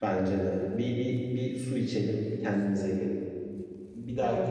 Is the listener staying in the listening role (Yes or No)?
Yes